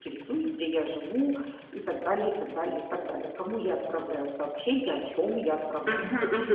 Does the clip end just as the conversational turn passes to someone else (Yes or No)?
Yes